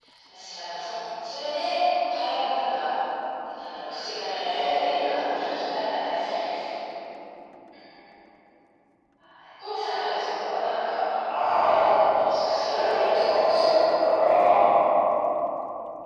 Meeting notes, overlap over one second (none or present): present